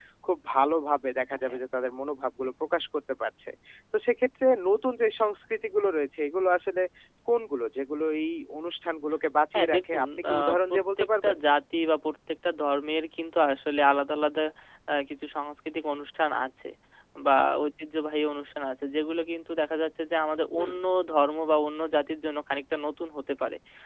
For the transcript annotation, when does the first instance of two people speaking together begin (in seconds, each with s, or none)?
9.6 s